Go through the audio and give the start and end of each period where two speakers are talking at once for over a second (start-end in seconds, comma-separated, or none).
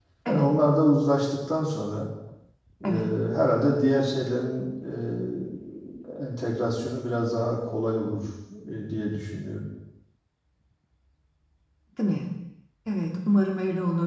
none